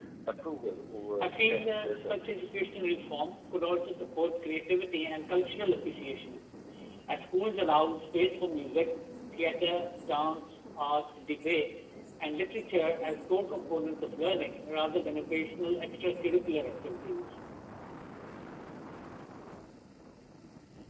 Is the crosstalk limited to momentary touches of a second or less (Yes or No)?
No